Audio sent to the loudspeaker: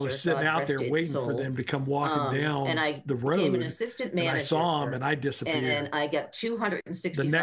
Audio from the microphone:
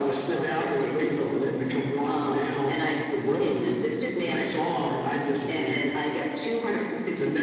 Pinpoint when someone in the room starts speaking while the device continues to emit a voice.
none

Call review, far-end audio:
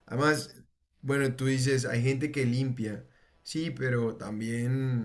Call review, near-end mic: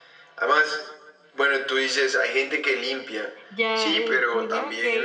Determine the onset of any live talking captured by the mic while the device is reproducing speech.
3.5 s

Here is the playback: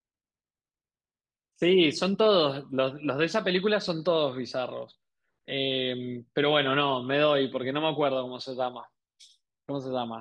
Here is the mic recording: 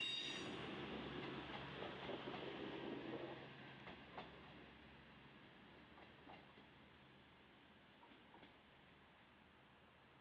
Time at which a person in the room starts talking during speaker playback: none

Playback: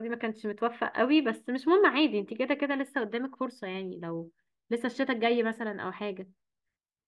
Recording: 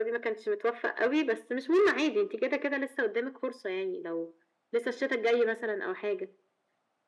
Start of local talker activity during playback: none

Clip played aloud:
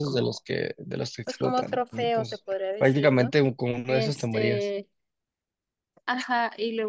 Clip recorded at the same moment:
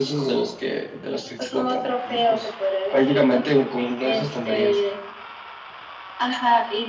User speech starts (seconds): none

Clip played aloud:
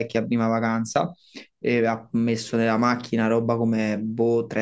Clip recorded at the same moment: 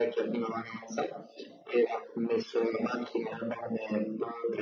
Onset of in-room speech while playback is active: none

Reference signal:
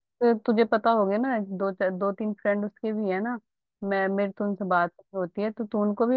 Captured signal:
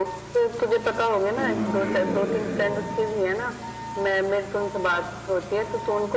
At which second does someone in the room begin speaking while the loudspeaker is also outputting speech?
1.3 s

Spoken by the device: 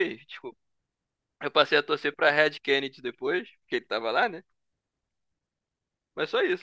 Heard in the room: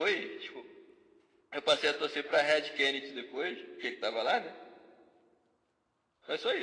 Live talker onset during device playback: none

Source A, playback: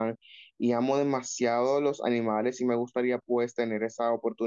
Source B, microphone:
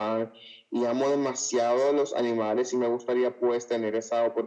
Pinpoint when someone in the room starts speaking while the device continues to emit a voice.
none

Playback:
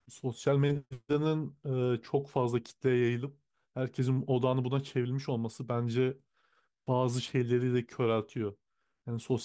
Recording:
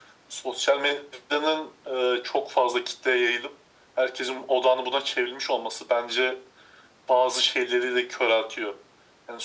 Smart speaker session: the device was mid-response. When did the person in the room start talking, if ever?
none

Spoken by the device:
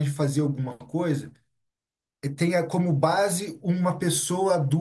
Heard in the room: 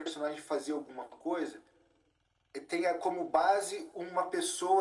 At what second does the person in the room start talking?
none

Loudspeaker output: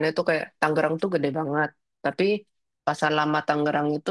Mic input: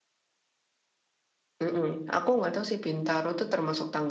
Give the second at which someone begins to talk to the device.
1.6 s

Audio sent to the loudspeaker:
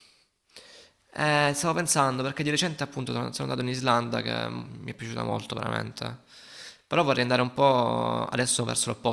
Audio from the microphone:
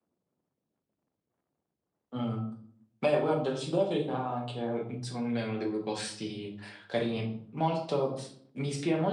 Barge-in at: 2.1 s

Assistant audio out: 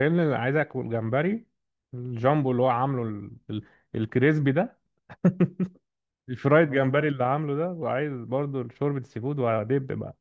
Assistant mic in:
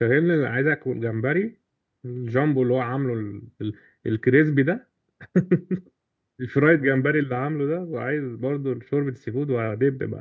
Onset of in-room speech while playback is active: none

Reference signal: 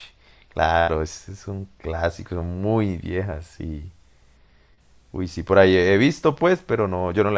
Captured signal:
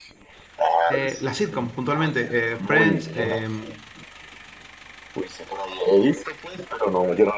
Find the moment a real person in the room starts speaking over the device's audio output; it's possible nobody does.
0.9 s

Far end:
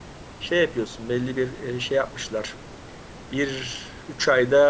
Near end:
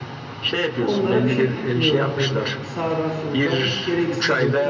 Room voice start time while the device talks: 0.8 s

